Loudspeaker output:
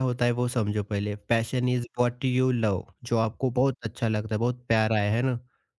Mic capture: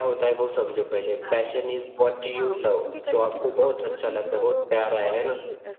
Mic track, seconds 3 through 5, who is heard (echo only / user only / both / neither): both